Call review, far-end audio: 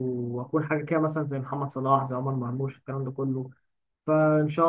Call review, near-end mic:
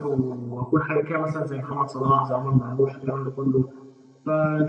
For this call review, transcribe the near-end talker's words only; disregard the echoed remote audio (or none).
none